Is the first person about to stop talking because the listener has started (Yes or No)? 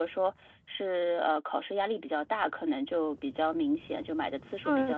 Yes